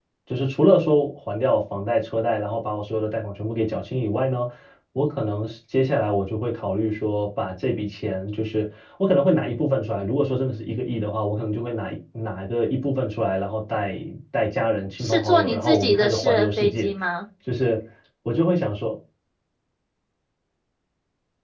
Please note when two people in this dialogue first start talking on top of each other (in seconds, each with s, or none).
15.0 s